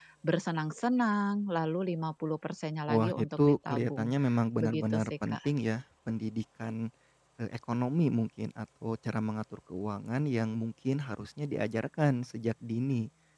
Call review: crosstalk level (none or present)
present